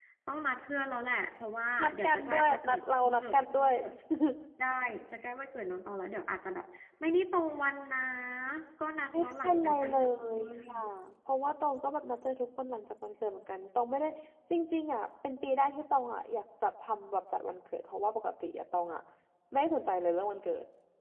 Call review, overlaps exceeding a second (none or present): present